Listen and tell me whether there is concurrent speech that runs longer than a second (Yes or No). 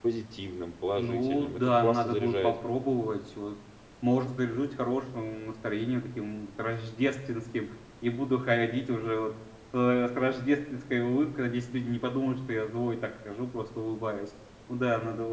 Yes